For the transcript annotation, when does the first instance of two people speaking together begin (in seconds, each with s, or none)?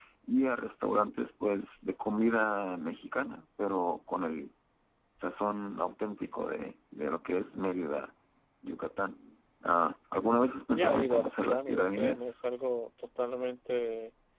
10.7 s